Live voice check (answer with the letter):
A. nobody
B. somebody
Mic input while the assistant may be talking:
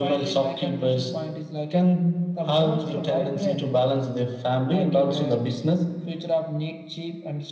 A